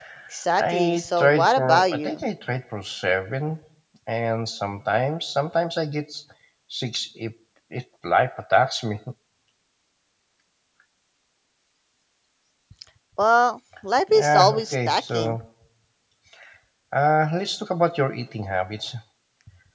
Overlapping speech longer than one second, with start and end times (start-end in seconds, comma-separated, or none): 0.6-2.2, 14.1-15.3